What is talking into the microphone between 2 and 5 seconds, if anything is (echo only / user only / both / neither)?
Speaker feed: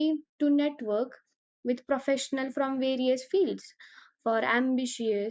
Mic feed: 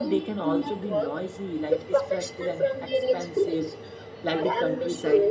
both